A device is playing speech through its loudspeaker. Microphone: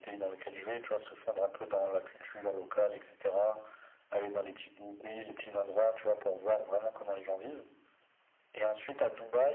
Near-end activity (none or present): none